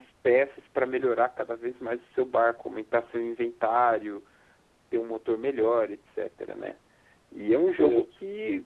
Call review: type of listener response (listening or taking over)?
listening